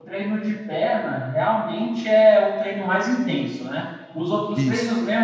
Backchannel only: Yes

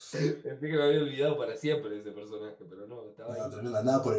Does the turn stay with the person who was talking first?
No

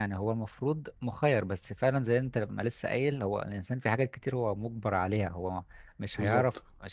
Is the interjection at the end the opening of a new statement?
No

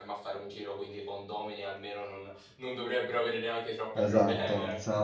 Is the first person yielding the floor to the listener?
Yes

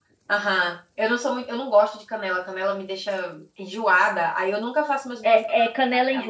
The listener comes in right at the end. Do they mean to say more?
Yes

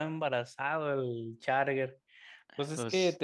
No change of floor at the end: Yes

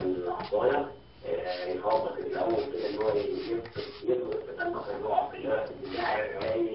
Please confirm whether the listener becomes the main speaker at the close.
No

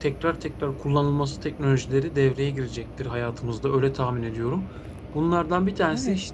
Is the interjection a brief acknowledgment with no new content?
Yes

